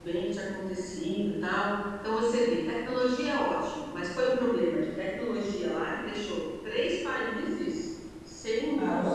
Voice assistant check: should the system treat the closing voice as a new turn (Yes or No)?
No